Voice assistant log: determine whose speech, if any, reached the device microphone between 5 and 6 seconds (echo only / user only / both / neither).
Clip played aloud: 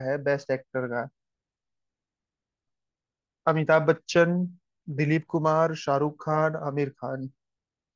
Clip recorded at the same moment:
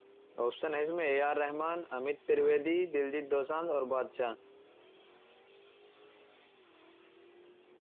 neither